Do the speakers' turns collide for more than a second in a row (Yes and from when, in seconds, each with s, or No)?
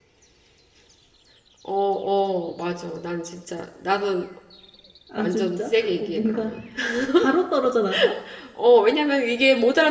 Yes, from 5.2 s